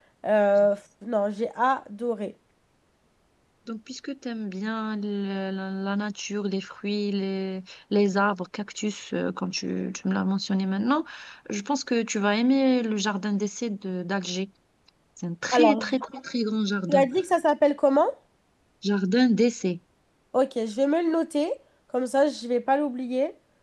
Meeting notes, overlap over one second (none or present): none